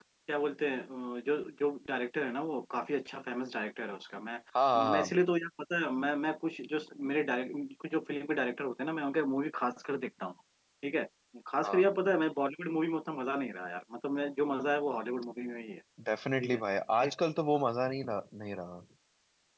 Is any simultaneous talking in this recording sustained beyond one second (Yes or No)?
No